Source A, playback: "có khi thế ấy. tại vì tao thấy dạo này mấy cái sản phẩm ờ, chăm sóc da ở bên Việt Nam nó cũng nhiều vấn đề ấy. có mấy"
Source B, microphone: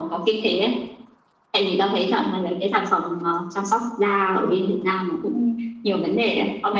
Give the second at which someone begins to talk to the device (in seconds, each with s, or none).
none